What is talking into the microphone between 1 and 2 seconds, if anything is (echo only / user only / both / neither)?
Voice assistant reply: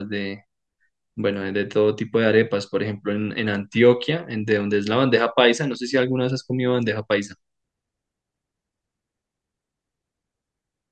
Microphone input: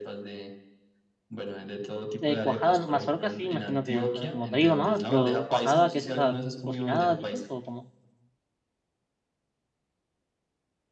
echo only